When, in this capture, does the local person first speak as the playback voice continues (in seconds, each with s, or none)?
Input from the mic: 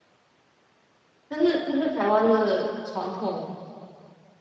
1.3 s